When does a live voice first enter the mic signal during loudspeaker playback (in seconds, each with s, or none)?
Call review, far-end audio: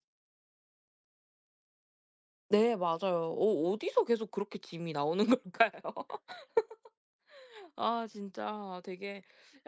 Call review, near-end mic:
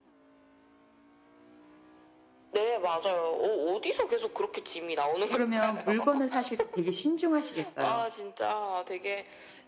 5.3 s